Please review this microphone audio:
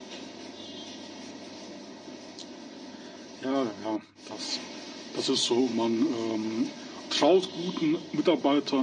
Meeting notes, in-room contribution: none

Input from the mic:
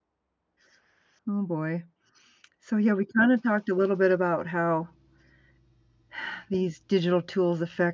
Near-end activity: present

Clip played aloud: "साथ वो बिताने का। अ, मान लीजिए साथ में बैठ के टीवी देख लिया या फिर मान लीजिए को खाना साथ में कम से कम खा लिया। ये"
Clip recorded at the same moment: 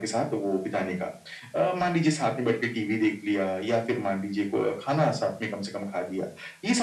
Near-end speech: none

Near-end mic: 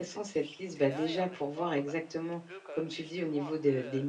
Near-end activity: present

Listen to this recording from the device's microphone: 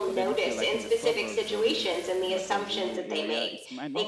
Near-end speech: present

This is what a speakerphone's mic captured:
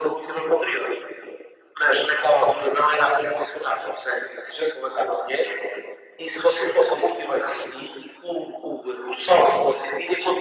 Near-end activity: none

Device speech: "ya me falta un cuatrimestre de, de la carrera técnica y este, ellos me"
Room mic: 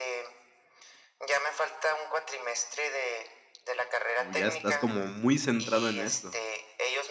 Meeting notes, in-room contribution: present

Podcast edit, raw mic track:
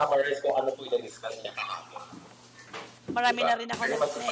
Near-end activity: present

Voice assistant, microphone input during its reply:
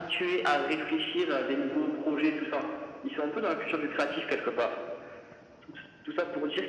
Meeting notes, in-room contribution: none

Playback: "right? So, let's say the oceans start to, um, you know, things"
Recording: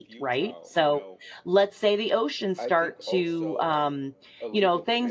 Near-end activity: present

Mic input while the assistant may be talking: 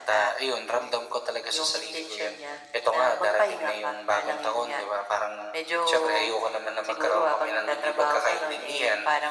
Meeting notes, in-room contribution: none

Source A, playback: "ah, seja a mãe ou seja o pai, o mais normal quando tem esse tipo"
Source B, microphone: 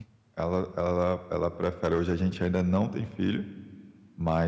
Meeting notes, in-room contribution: present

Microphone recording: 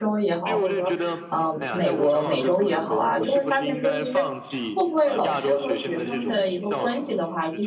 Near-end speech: present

